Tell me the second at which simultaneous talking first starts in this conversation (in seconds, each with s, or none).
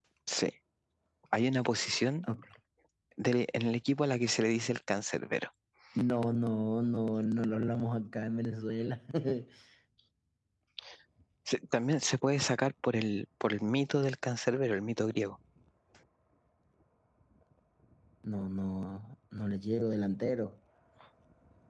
none